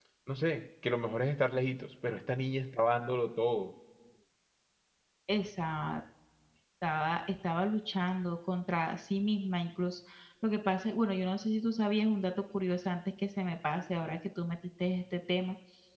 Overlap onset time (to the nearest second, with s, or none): none